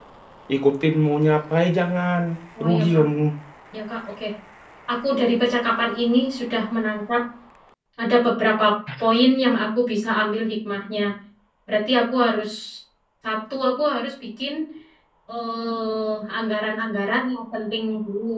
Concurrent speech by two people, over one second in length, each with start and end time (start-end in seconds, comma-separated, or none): none